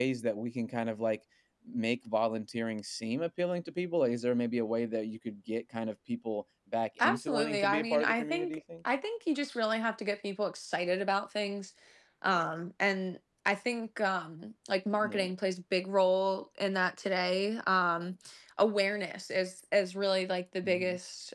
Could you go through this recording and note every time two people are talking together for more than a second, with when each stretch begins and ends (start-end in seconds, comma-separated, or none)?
7.0-8.6